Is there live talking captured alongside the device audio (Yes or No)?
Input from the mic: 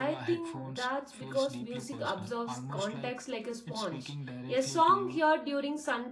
Yes